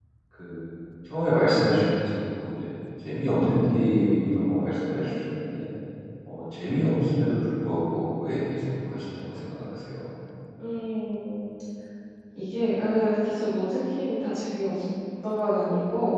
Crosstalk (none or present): none